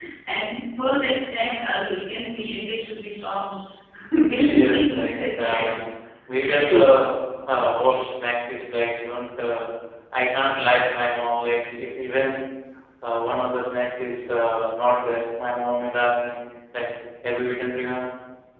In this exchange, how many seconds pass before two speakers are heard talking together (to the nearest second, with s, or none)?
4 s